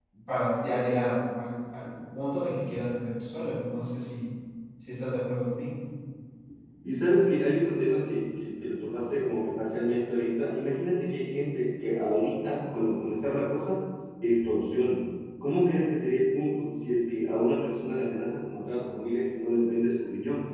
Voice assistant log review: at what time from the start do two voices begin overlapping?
none

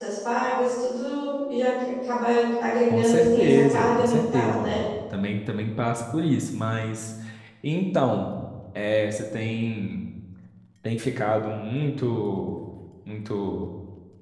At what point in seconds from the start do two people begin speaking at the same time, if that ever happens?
2.9 s

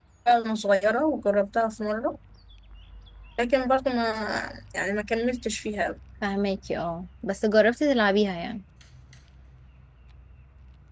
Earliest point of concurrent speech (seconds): none

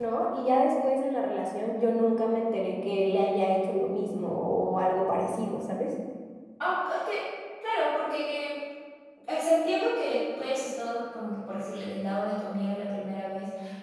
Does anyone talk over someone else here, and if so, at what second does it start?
none

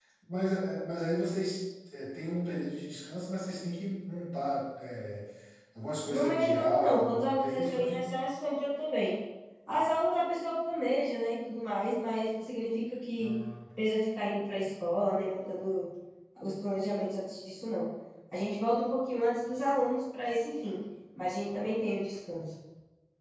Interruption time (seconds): 6.1 s

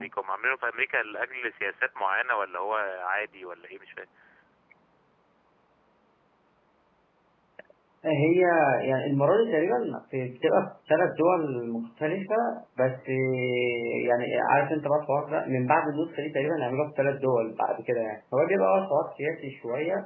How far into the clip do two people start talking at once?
none

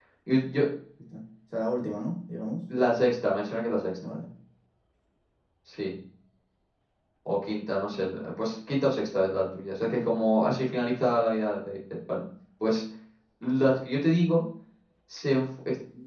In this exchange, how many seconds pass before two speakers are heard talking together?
none

